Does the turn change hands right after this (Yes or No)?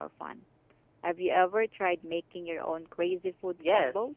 Yes